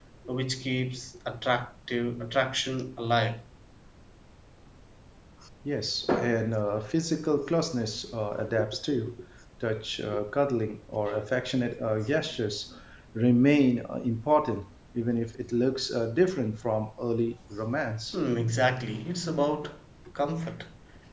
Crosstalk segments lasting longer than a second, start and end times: none

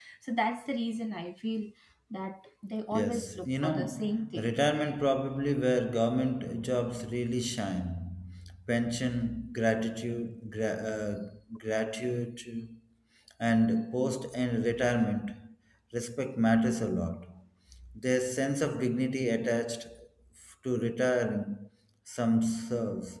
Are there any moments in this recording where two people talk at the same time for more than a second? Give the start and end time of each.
2.9-4.5

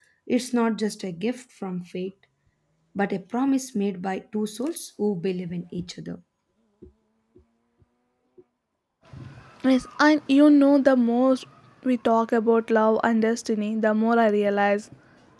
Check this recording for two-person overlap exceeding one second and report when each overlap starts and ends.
none

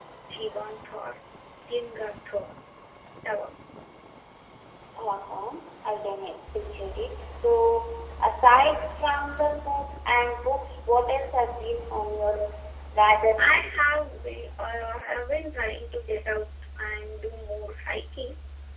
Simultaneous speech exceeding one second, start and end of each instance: none

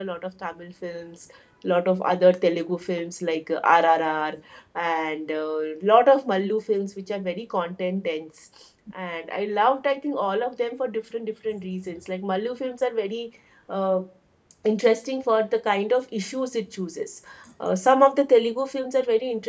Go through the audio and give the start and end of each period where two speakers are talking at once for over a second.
none

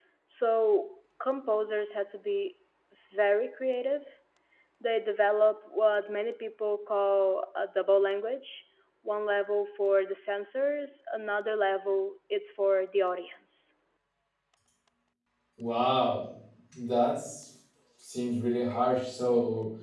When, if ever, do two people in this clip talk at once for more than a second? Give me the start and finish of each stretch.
none

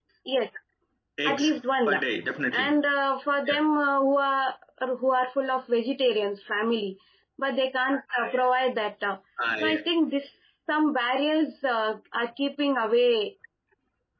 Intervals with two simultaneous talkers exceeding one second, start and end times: none

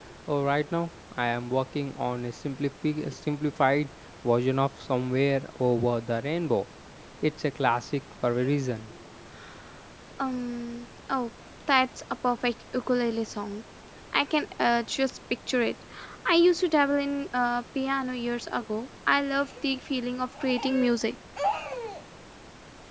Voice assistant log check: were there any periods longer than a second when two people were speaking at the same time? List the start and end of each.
none

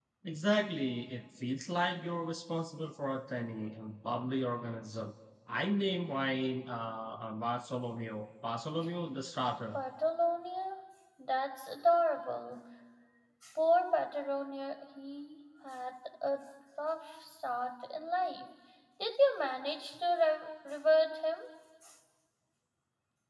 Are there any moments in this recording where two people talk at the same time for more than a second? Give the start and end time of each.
none

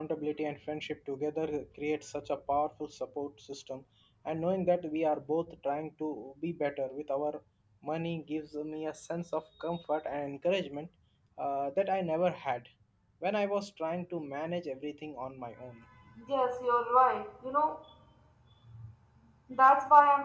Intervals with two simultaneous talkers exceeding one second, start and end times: none

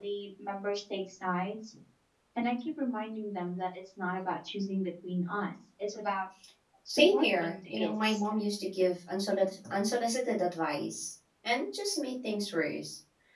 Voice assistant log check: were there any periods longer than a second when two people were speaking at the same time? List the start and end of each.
6.9-8.2

